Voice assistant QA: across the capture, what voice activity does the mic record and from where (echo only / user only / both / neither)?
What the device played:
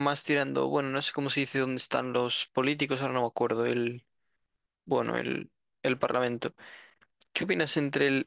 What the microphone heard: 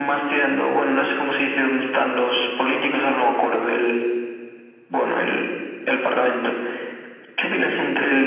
echo only